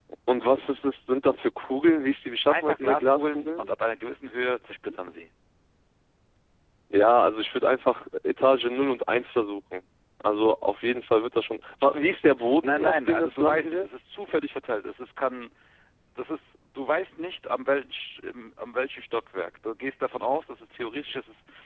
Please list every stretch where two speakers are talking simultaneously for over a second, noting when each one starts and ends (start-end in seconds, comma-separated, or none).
2.5-3.7, 12.6-13.8